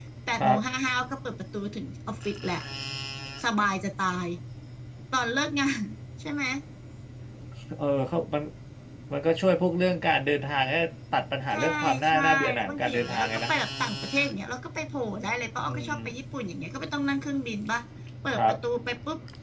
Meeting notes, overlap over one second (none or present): present